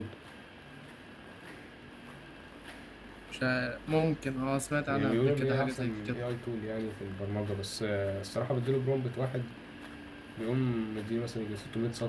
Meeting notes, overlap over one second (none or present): present